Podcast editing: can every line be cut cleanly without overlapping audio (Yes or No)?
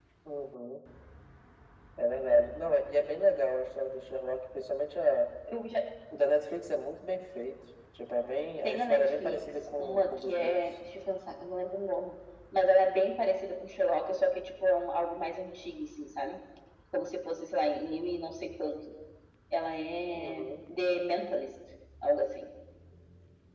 No